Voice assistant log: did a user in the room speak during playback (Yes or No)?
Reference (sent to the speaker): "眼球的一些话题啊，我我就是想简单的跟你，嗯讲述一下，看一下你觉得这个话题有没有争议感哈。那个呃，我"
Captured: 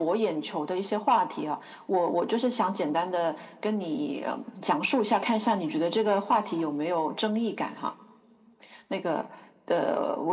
No